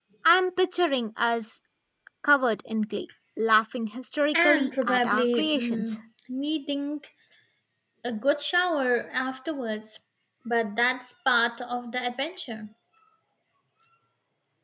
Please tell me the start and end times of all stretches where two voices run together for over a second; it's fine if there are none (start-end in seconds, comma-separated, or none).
4.3-6.0